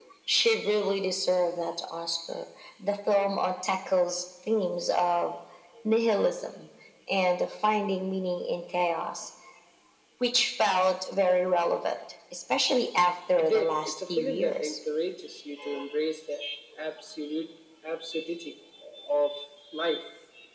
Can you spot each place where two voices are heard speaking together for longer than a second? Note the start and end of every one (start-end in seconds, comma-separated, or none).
13.4-14.8